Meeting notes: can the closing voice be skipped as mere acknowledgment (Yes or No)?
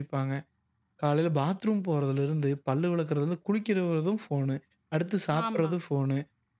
Yes